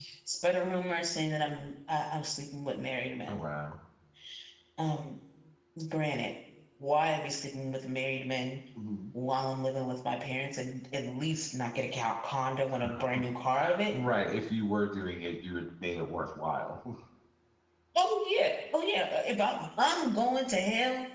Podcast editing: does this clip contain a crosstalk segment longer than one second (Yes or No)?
No